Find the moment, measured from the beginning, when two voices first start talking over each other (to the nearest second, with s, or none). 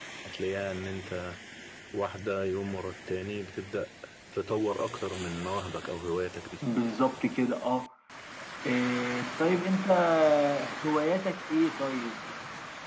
none